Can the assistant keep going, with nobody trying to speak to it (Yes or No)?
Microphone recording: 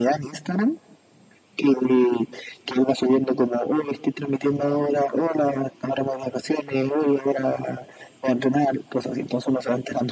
Yes